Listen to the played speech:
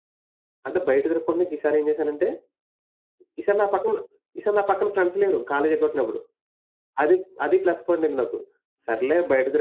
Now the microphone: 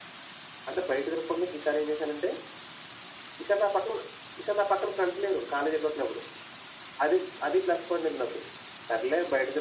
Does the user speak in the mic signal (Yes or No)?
No